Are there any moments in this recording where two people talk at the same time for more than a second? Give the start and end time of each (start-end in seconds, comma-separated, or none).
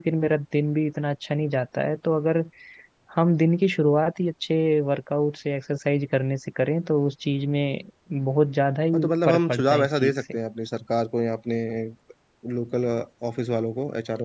8.9-10.2